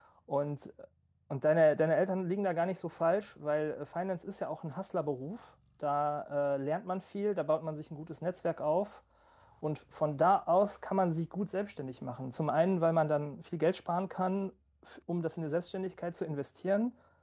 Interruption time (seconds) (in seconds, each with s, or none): none